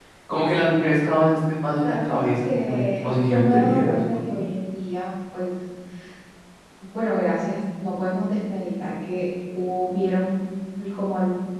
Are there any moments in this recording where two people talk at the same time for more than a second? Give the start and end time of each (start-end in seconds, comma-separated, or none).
1.8-4.0